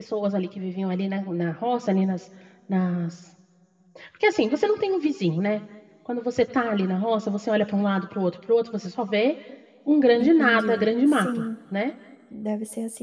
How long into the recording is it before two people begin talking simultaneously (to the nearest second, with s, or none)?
10 s